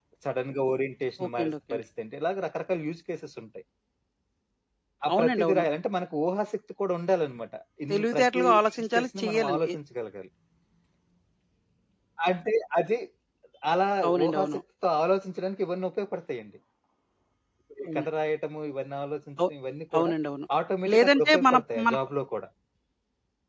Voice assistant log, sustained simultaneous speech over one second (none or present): present